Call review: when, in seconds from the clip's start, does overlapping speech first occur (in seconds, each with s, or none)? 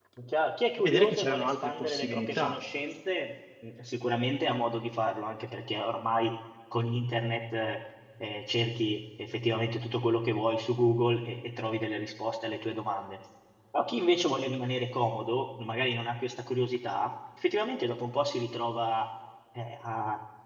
0.8 s